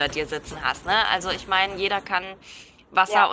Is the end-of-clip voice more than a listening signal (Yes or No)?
Yes